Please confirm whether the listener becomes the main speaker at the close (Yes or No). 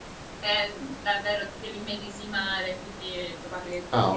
Yes